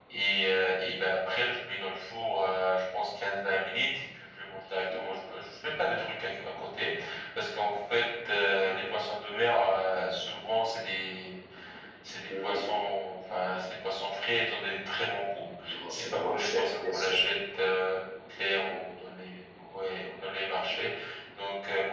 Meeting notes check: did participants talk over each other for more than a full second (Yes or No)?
Yes